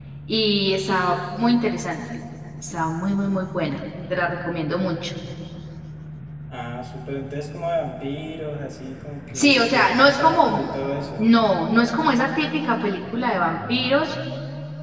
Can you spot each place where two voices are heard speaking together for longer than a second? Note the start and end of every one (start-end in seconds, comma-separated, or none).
9.3-10.6